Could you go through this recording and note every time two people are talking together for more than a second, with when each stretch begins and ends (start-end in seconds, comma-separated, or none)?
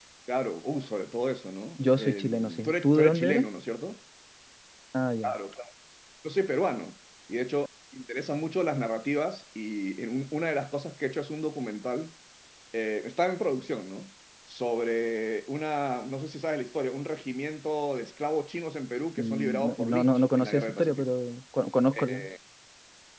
1.8-3.5, 19.2-21.1